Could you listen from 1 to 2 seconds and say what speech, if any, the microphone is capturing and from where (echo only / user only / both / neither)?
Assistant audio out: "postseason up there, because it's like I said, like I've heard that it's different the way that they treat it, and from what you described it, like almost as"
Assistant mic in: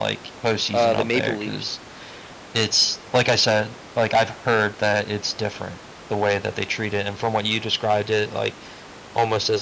both